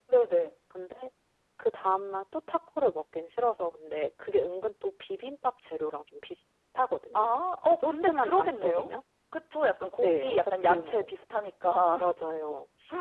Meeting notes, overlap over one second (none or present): present